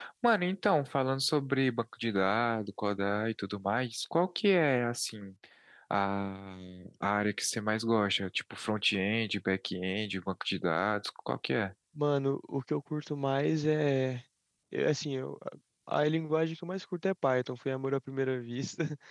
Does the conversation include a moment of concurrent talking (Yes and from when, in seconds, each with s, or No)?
No